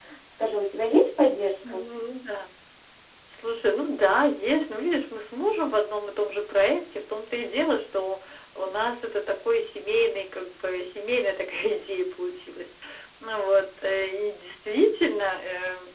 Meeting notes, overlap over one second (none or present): none